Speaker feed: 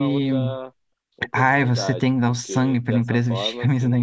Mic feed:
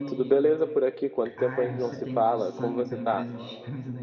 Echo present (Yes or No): Yes